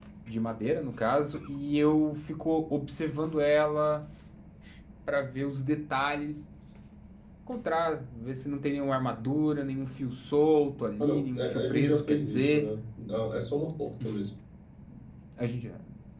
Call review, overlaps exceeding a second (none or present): present